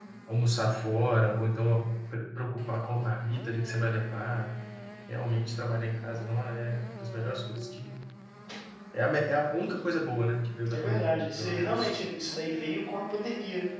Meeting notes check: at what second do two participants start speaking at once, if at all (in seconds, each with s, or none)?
10.7 s